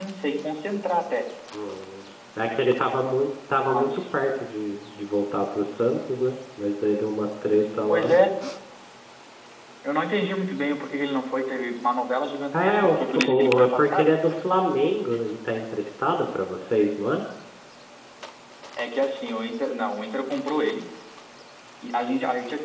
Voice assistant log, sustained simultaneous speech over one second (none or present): present